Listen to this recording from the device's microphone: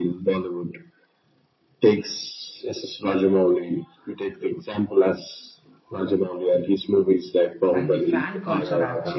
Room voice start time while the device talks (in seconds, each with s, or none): 7.7 s